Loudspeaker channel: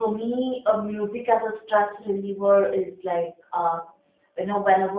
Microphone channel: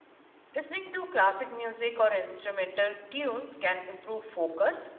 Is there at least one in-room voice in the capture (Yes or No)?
Yes